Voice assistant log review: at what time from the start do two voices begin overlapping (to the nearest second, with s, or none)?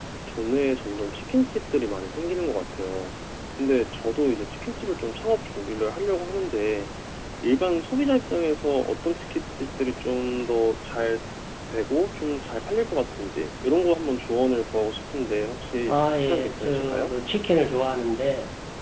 16 s